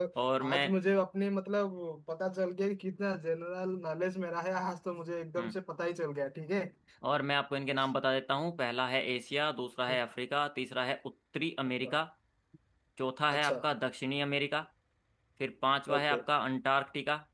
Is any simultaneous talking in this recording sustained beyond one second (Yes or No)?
No